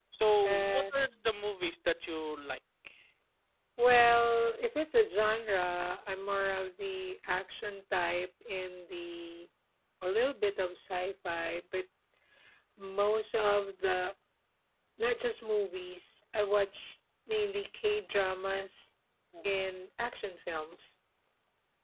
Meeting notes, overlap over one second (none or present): none